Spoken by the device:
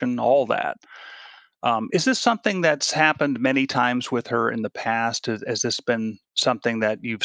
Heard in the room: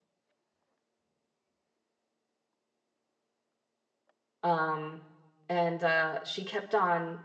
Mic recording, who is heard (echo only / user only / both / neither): user only